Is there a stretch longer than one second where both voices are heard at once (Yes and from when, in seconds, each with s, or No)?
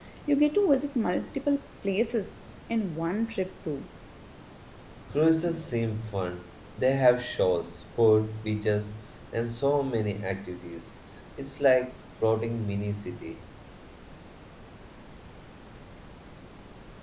No